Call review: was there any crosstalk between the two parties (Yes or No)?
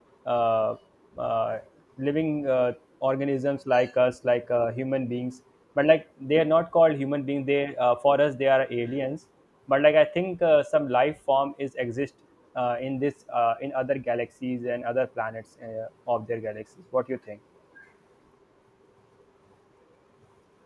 No